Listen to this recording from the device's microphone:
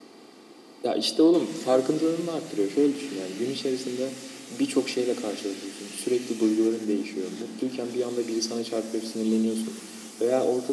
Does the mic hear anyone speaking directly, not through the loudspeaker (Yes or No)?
No